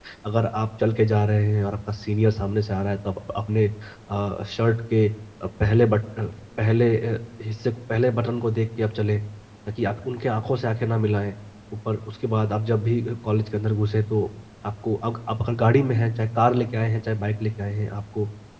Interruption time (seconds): none

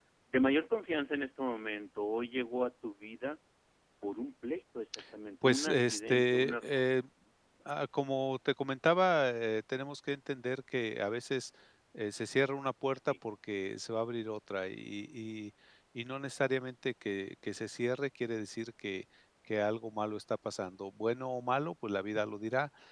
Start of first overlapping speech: 5.4 s

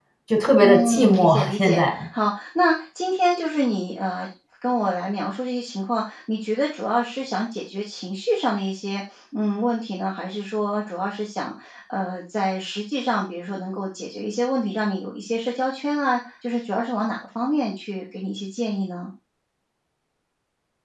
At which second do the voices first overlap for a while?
0.6 s

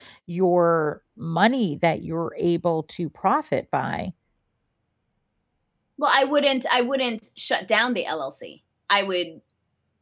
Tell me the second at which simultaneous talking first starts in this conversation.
none

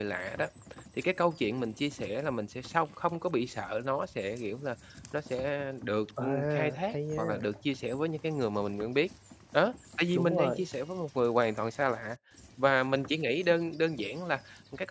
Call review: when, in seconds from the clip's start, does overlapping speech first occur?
6.2 s

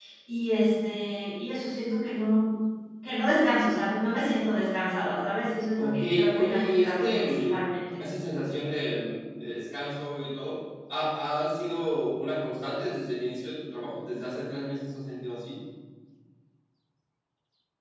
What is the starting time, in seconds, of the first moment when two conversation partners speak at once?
5.8 s

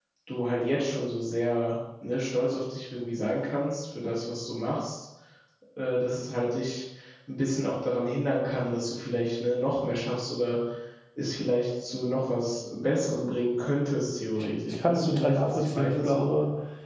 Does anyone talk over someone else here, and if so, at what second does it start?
14.4 s

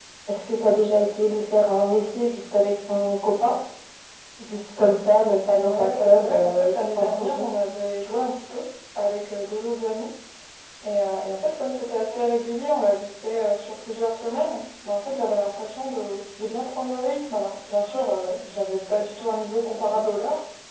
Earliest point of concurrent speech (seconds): 5.5 s

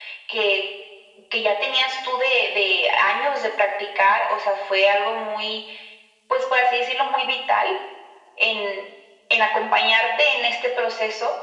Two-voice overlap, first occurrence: none

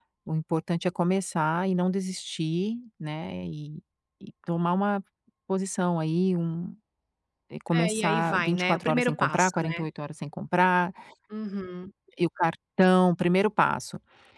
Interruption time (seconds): 7.7 s

